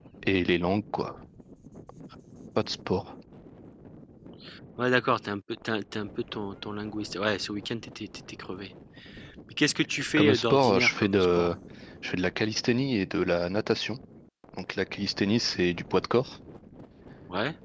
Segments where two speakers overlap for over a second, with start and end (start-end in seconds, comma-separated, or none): 10.2-11.5